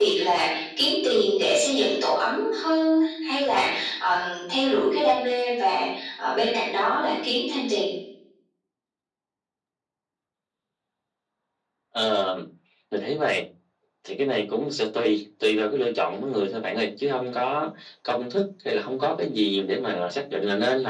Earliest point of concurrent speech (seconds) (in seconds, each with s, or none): none